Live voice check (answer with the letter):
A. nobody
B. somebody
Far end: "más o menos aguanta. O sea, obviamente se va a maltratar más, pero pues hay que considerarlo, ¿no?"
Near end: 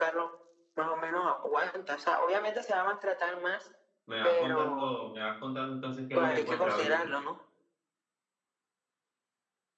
B